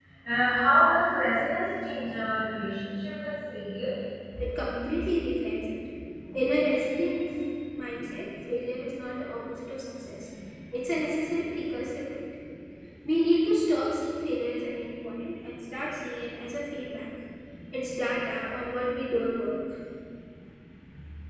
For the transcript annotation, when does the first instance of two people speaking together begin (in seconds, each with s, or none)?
none